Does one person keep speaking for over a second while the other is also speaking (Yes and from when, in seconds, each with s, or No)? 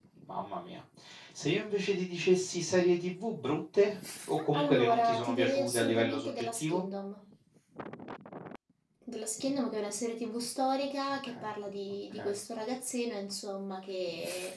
Yes, from 4.6 s